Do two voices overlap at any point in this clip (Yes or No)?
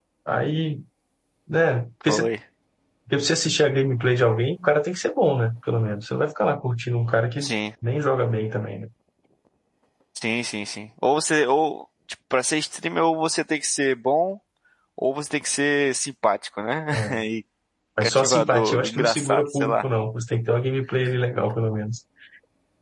Yes